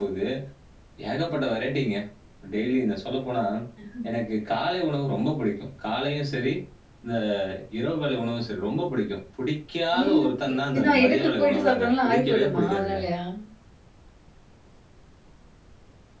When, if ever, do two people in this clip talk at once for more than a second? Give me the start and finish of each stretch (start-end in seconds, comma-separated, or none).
10.0-13.0